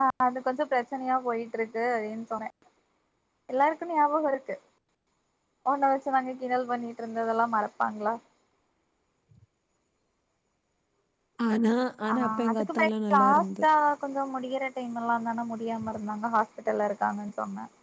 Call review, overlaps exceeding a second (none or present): present